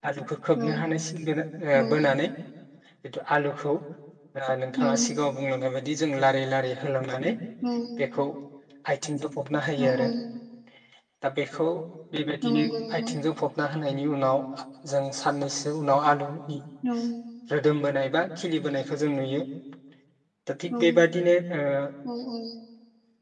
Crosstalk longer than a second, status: none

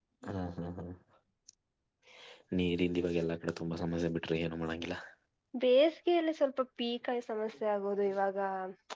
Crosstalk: none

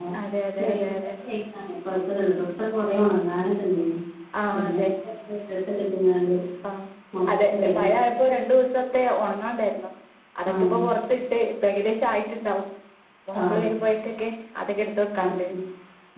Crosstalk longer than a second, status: none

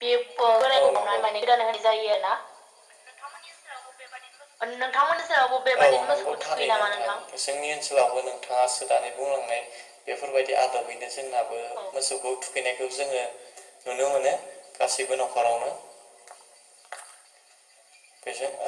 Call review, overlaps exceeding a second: present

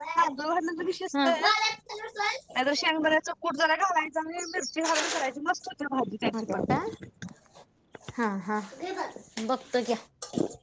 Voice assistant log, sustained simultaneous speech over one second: none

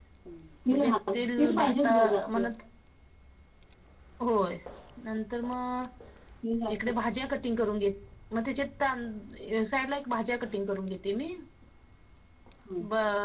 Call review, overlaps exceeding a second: present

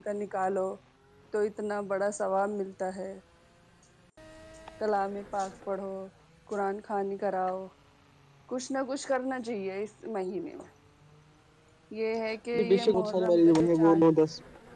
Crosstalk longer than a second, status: present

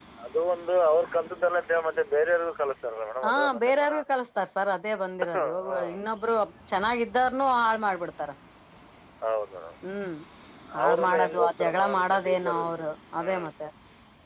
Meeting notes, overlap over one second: present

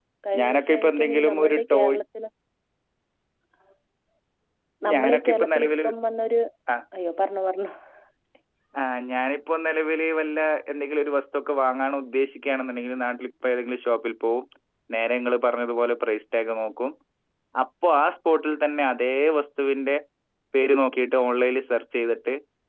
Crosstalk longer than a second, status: present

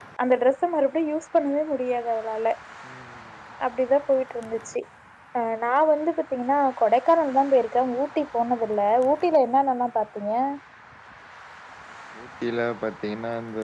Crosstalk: none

